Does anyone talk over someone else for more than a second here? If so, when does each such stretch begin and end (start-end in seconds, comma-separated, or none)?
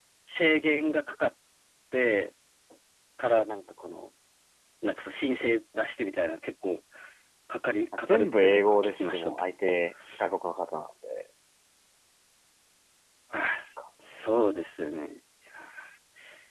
8.1-9.4